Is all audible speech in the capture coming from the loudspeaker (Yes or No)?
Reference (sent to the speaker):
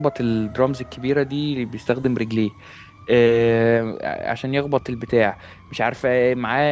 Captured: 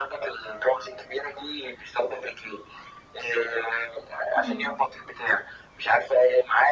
No